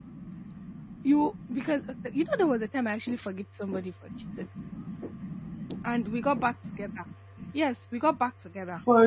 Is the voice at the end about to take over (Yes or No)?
No